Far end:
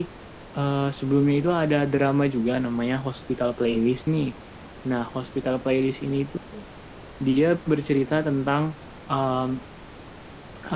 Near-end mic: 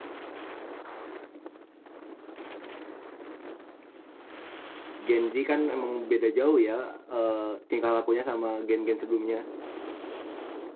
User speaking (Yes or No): Yes